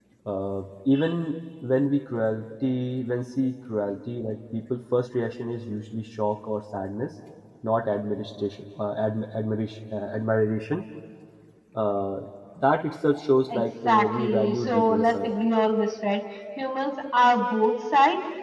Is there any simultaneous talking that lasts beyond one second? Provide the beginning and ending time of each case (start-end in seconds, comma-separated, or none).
13.5-15.3